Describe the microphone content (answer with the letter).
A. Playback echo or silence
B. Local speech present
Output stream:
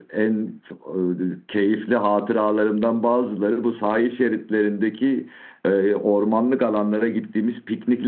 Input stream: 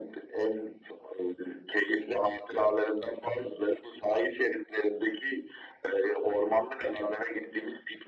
A